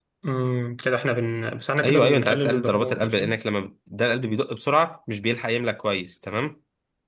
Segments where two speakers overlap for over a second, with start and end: 1.8-3.4

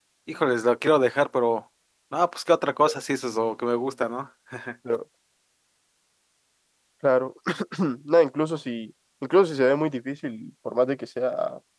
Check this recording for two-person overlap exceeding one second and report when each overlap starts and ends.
none

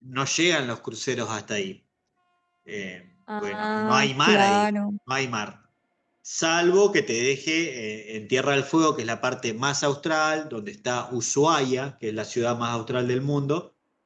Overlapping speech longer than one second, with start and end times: 3.4-4.7

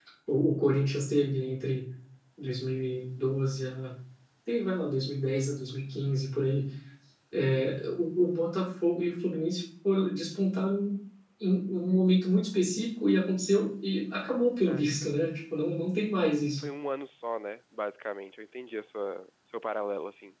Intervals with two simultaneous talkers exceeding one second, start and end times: none

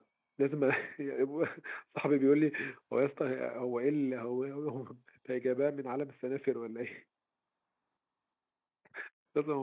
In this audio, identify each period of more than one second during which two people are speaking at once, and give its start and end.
none

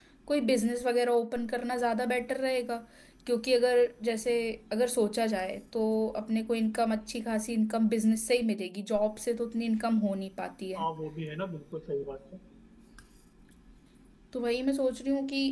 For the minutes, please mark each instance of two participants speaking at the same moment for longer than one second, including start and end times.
none

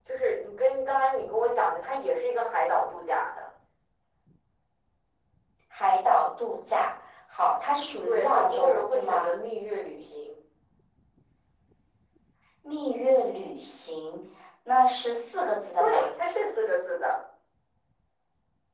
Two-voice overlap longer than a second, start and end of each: 8.0-9.3

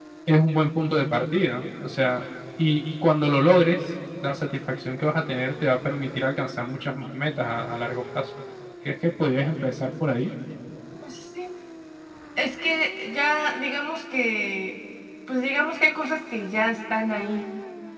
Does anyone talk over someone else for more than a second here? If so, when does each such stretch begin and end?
none

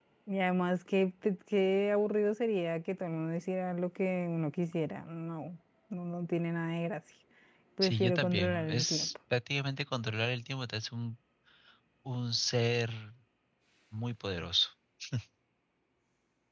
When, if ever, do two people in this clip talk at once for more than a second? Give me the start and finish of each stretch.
7.8-9.1

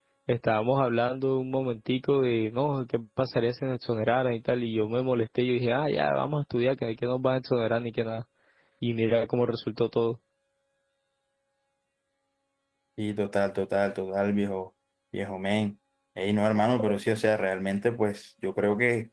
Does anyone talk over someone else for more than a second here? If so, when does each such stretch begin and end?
none

